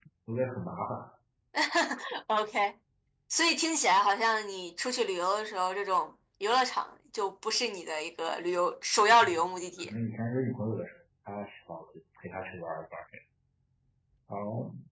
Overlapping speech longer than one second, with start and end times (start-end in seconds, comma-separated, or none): none